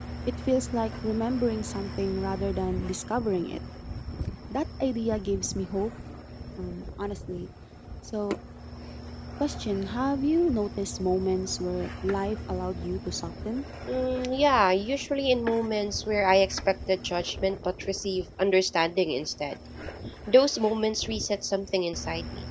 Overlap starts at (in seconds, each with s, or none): none